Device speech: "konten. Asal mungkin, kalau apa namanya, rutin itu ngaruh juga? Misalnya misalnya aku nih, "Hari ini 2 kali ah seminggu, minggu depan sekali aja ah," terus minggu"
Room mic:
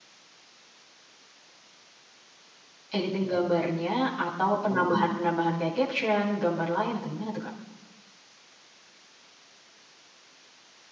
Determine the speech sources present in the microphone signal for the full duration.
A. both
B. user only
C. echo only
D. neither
B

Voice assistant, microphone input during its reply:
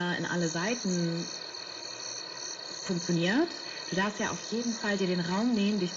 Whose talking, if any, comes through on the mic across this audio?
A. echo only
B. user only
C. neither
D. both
A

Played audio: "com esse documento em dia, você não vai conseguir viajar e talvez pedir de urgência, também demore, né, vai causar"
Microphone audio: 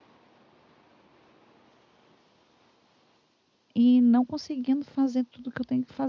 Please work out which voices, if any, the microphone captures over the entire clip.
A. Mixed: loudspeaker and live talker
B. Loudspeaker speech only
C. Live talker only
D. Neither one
C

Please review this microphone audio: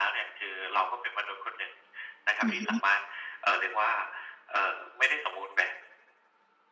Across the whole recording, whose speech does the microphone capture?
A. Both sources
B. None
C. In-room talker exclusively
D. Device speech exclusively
A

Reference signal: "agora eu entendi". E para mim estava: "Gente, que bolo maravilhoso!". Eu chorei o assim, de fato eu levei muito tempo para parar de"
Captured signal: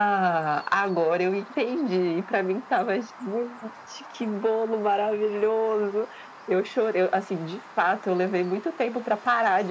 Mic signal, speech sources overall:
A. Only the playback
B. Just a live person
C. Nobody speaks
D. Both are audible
A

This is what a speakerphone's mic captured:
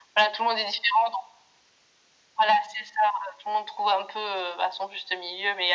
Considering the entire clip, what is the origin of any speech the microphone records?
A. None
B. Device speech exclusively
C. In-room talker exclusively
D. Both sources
B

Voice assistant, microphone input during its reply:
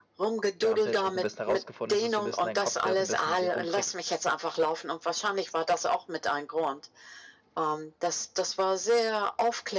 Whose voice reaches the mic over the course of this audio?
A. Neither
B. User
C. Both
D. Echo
C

